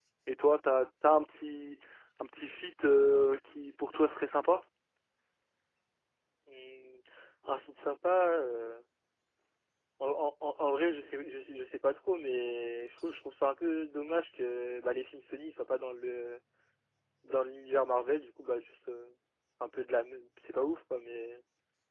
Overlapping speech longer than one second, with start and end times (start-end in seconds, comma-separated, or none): none